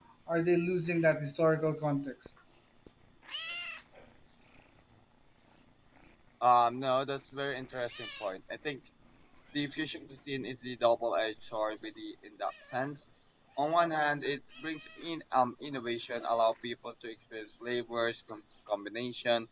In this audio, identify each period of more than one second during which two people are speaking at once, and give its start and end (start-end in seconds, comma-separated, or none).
none